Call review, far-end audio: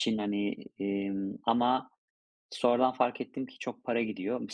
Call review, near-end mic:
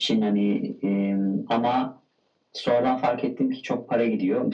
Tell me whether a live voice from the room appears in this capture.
No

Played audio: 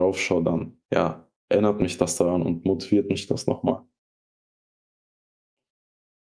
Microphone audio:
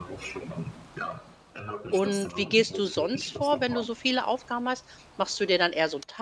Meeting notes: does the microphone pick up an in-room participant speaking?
Yes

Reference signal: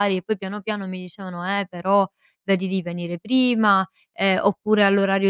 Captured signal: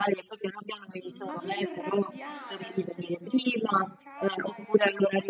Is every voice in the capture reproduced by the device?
No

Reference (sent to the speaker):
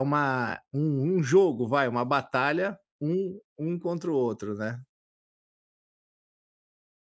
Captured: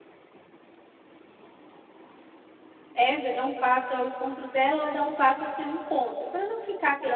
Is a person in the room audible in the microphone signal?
Yes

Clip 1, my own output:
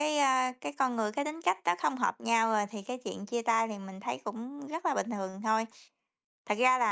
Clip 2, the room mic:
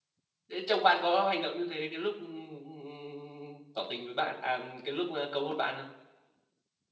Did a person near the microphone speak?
Yes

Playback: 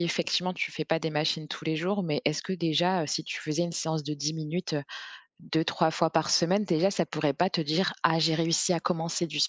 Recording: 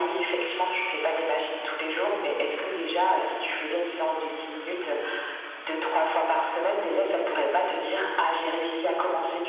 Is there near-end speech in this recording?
No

